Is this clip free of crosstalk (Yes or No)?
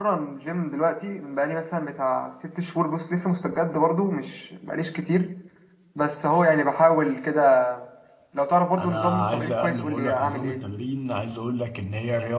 No